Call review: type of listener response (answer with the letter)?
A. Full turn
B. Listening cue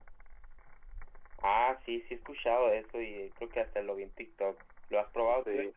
A